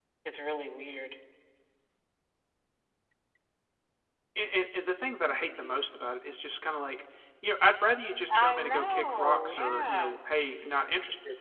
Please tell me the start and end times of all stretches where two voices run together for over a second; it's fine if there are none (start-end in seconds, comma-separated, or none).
8.3-10.2